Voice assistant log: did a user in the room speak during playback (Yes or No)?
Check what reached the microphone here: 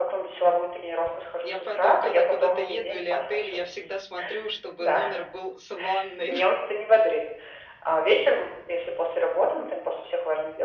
Yes